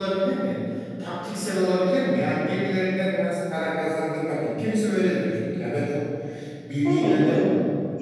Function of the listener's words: taking over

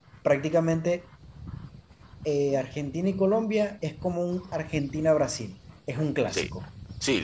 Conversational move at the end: taking over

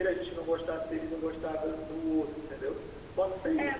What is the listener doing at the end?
taking over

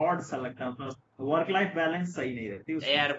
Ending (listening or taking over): taking over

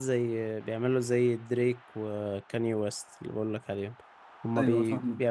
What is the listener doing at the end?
listening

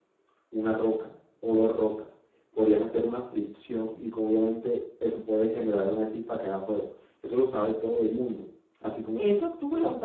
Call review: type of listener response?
taking over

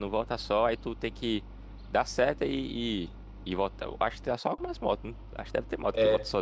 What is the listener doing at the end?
taking over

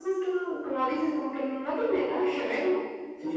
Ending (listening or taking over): taking over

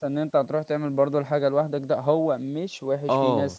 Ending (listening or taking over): listening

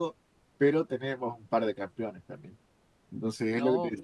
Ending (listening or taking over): listening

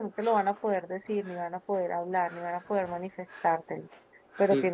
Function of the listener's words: listening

